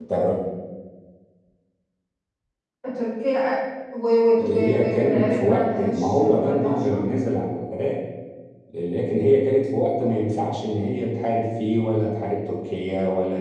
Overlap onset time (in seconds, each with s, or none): 4.4 s